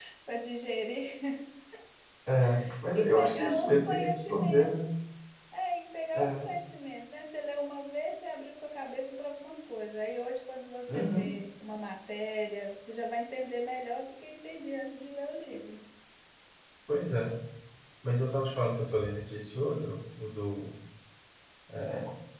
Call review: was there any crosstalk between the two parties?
Yes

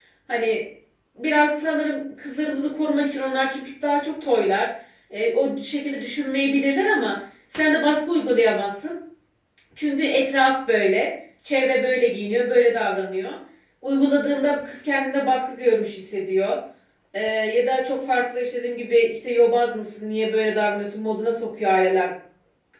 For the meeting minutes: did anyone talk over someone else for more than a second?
No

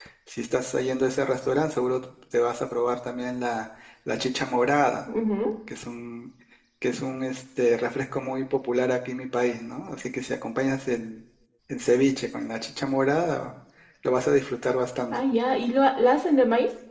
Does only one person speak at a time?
Yes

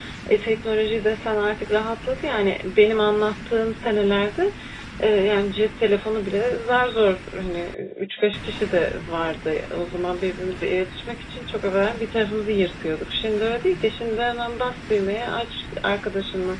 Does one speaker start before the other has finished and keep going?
No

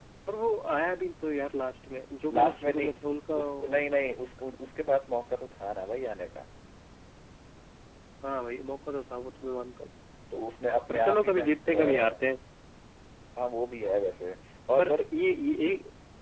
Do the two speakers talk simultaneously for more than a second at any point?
Yes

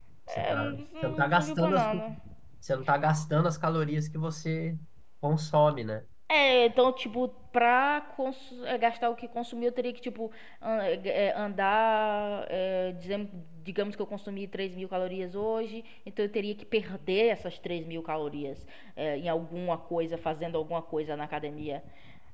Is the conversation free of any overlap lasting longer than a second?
No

